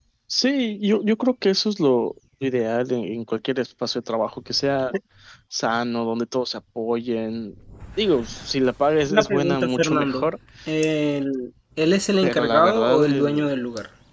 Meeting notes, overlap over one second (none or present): present